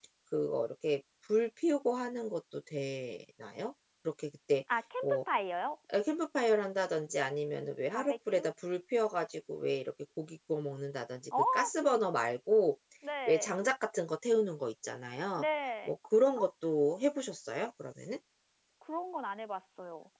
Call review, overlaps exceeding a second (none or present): none